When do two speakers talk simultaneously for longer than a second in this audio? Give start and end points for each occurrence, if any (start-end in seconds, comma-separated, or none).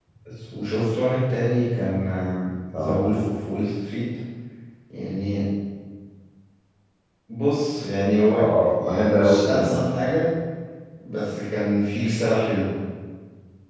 8.4-9.8